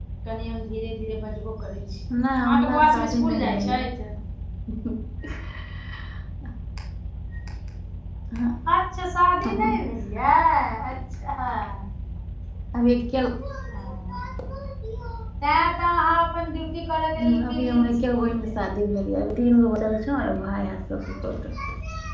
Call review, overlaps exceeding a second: present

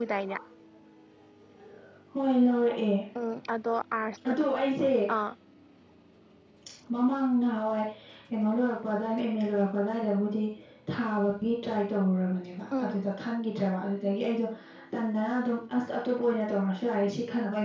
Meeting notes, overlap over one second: none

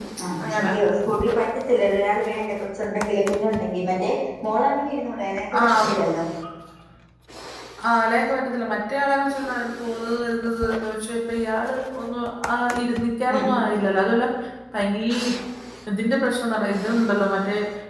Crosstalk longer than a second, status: none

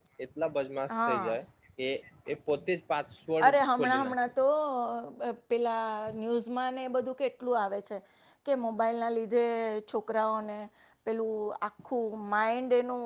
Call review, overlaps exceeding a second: none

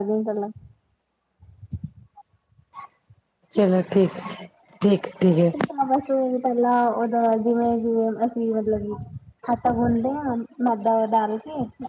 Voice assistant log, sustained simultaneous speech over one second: none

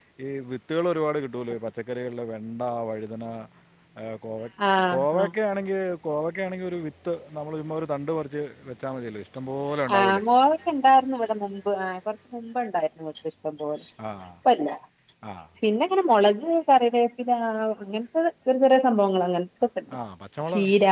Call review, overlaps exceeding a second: none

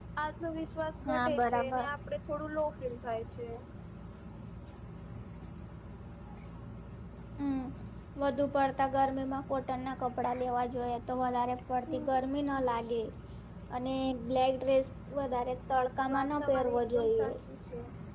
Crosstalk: present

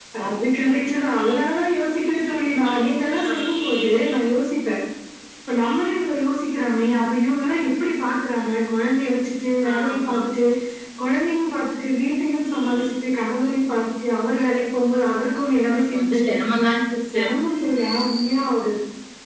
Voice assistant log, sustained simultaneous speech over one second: none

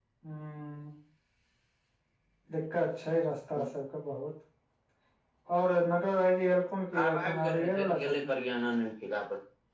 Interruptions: present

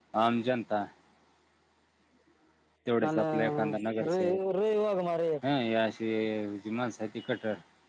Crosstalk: present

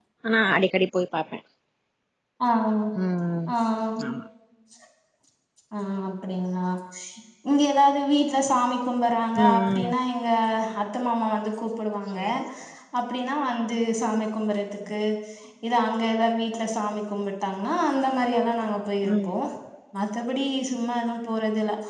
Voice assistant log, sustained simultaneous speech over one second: none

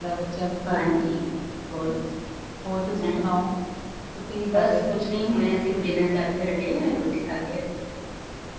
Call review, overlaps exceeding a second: none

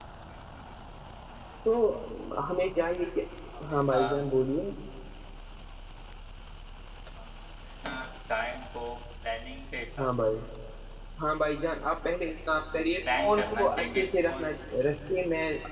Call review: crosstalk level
present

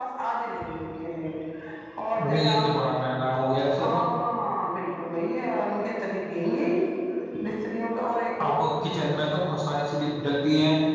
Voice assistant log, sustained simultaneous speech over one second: none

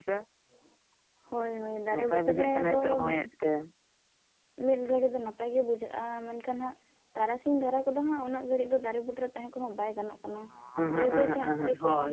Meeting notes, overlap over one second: present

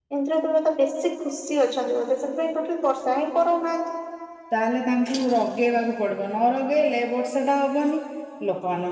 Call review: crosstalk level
none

